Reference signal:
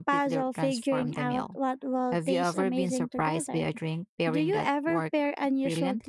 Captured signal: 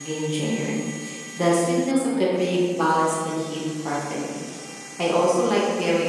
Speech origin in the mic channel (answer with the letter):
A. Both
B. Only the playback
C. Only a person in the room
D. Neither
C